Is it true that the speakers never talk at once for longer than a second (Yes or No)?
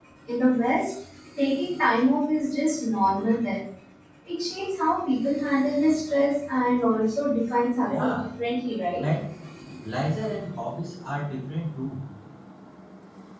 Yes